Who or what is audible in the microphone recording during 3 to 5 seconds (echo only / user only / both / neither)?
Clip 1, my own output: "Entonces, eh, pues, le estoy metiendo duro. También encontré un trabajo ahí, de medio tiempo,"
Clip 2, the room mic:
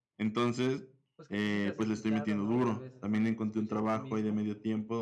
both